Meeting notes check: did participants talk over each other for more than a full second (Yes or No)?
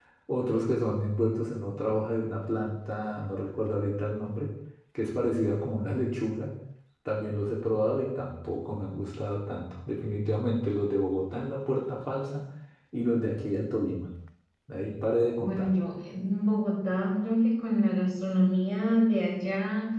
No